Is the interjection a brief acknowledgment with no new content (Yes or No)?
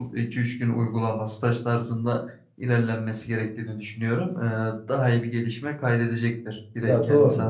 No